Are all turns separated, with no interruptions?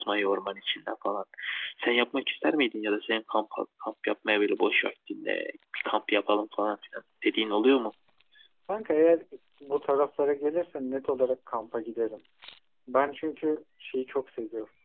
Yes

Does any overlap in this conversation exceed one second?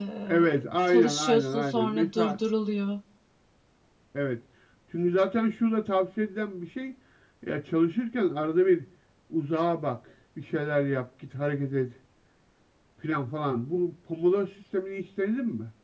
Yes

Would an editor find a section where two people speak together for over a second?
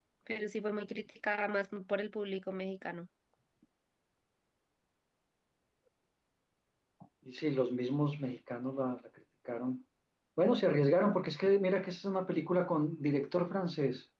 No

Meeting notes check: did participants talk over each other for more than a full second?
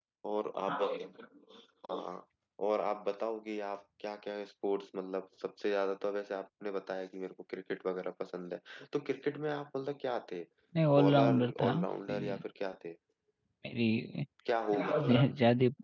Yes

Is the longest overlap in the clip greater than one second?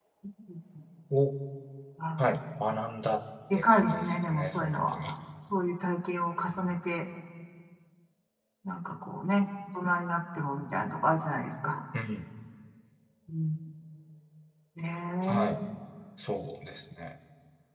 Yes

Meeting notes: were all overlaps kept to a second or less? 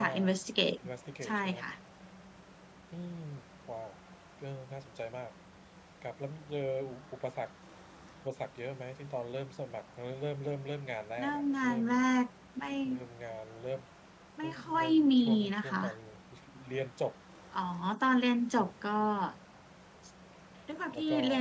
No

